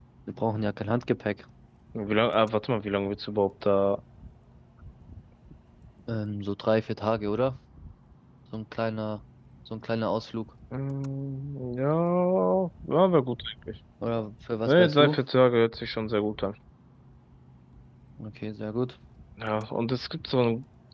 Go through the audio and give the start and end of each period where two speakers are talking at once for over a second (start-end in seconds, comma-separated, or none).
none